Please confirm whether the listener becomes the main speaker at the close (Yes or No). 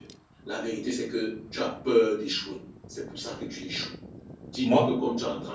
No